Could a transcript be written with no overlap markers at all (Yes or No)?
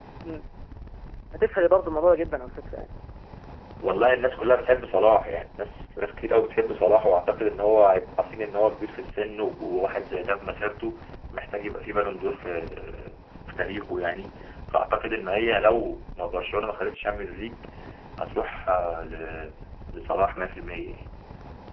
Yes